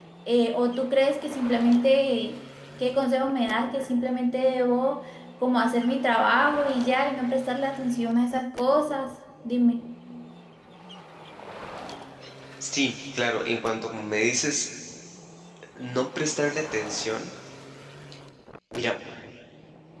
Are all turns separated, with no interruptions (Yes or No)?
Yes